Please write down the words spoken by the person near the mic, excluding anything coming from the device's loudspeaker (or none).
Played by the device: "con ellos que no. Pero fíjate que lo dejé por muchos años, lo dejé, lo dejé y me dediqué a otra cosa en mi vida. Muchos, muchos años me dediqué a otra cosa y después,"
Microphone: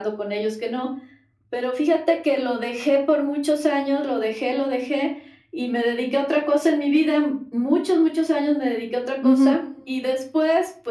Ujú.